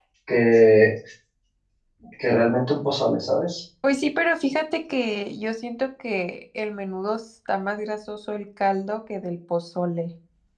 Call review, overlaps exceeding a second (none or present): none